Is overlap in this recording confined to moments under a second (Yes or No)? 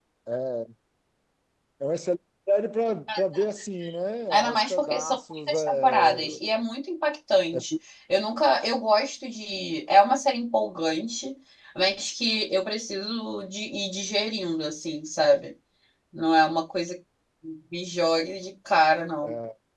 No